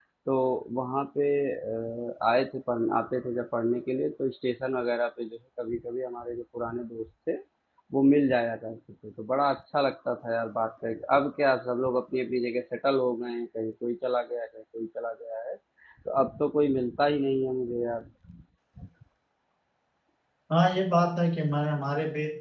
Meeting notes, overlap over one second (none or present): none